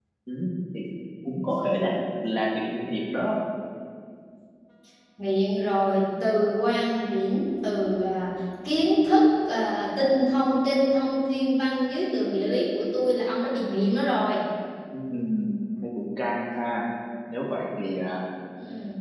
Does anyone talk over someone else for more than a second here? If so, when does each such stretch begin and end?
none

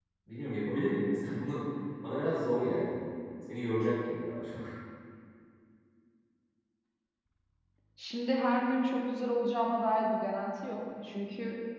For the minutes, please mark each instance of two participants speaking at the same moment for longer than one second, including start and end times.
none

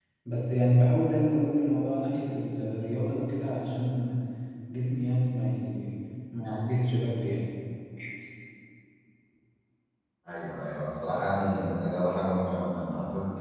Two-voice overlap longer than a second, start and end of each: none

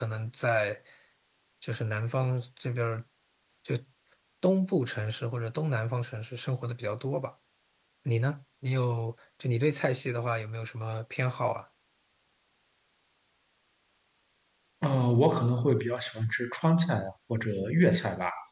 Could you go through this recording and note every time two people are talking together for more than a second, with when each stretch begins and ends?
none

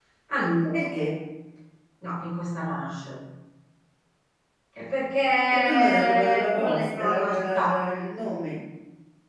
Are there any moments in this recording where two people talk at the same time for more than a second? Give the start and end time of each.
5.5-7.8

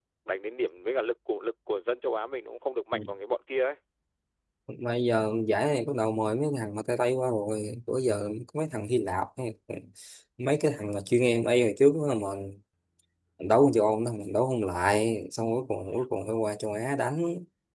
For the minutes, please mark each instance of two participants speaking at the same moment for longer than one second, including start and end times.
none

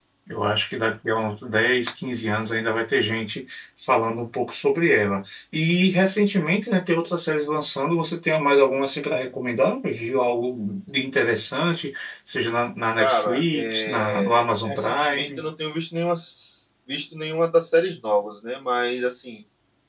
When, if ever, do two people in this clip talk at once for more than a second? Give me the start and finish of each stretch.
13.0-15.5

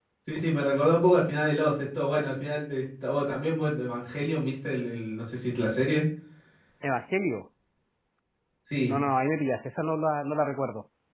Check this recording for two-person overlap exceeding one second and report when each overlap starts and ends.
none

